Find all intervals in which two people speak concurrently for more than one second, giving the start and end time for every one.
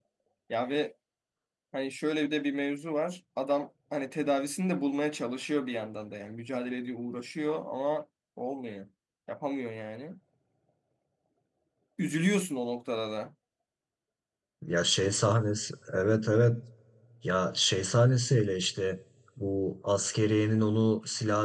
none

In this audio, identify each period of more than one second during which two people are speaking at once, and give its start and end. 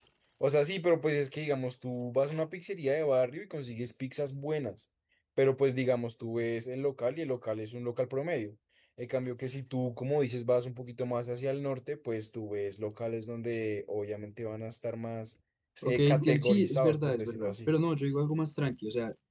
15.8-17.7

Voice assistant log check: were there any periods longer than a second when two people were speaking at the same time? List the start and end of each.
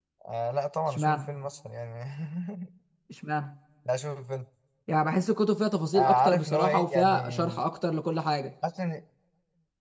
6.0-7.4

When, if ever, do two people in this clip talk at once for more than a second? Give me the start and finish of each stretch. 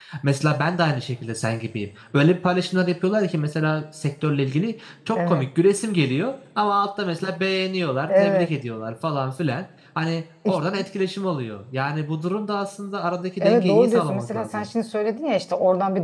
13.4-14.7

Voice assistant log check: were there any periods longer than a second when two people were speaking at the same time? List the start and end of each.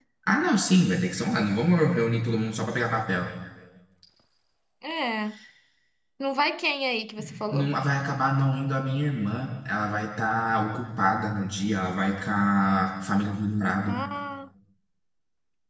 none

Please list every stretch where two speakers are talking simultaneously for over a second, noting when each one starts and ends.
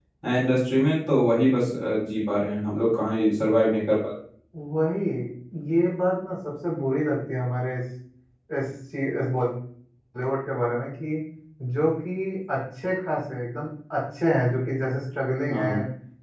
none

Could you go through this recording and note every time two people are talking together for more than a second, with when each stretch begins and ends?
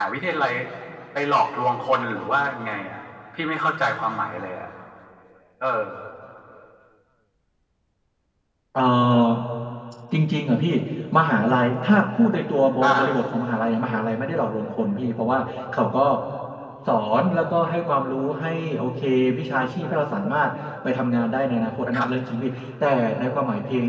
none

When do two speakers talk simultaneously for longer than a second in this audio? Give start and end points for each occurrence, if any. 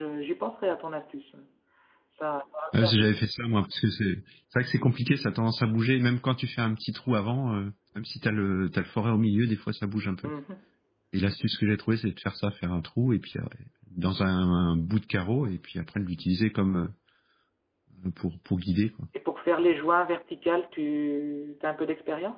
none

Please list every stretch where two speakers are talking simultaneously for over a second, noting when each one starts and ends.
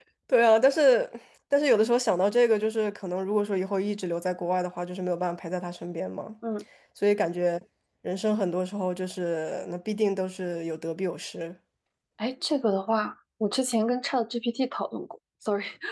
none

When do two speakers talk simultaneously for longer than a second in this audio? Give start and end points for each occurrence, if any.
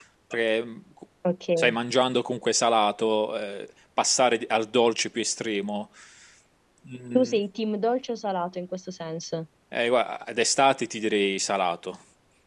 none

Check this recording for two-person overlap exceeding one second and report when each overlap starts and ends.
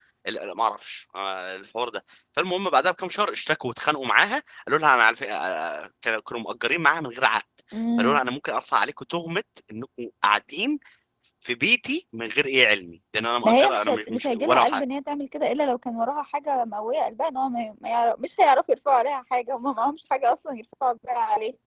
13.4-14.8

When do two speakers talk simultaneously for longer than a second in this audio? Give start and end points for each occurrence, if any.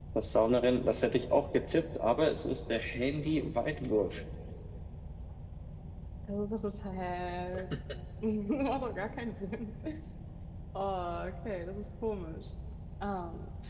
none

